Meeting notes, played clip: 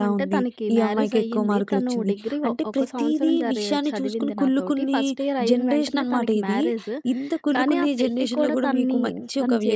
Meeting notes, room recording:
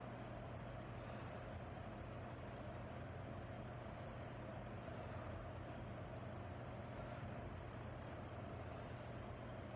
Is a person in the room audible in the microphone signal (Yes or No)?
No